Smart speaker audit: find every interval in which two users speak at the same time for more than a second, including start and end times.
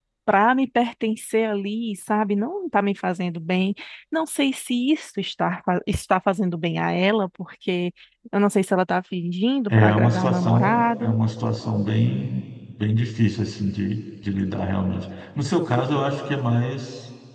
9.7-11.2

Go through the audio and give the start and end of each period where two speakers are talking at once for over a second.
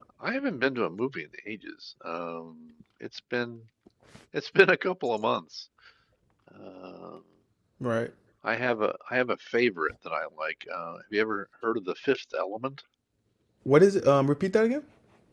none

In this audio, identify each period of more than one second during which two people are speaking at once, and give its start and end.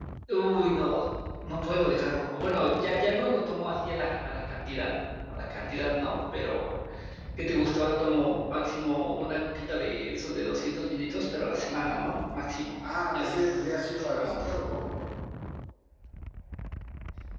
13.1-14.5

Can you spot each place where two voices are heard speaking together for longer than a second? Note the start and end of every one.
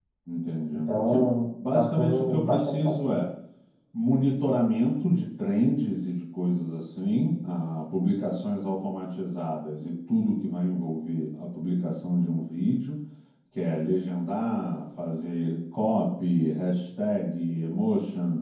1.7-3.2

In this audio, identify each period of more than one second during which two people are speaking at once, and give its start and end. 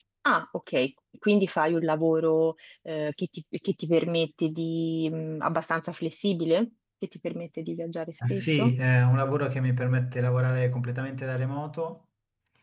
none

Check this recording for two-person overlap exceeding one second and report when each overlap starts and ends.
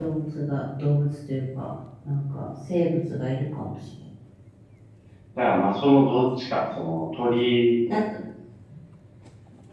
none

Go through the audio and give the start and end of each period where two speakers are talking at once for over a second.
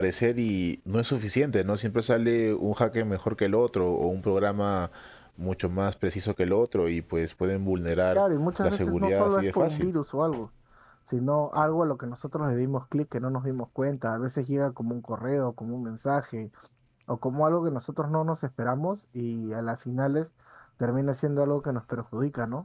8.6-9.9

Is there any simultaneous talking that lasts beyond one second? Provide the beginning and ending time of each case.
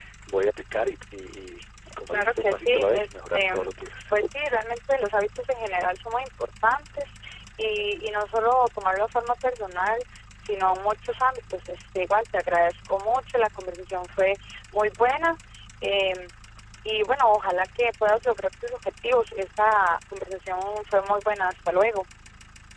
2.1-4.1

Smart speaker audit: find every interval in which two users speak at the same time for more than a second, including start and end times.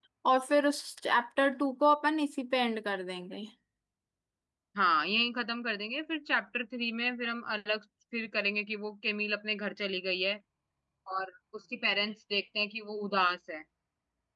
none

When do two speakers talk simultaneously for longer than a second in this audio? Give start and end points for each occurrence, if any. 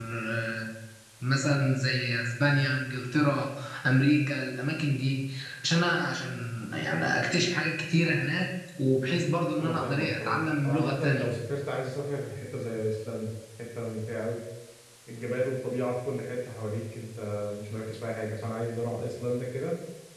9.6-11.3

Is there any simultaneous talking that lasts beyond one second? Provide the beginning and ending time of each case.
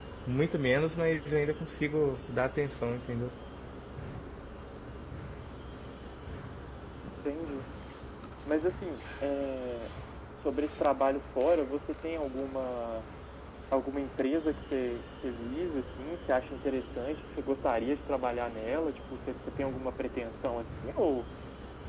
none

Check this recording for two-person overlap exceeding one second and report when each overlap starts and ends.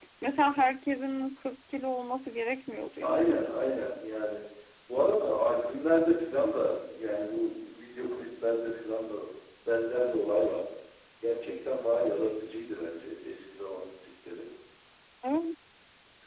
none

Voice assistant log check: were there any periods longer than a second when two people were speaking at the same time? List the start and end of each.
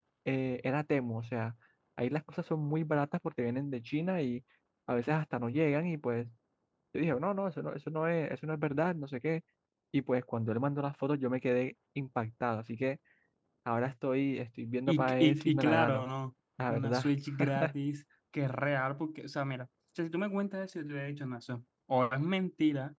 14.9-16.1

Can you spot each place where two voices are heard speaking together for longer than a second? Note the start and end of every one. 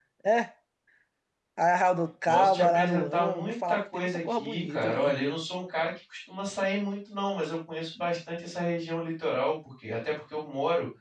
2.3-5.2

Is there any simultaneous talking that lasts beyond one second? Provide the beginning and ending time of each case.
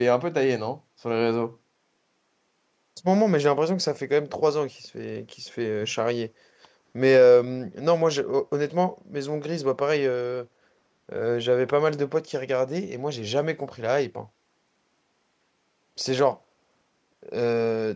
none

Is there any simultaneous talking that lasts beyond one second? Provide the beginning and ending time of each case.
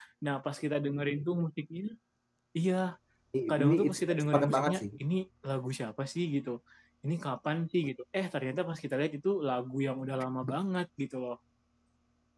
3.5-4.8

